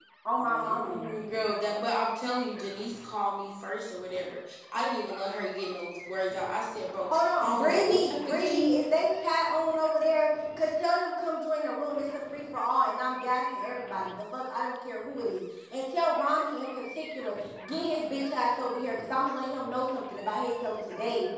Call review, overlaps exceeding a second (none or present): present